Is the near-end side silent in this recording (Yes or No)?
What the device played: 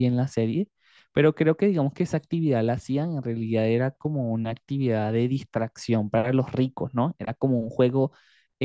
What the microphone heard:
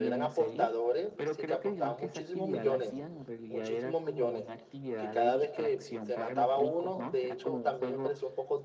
No